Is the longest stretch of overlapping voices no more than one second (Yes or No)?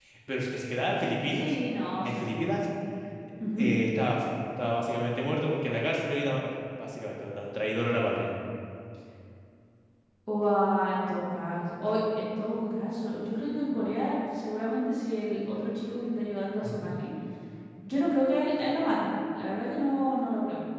Yes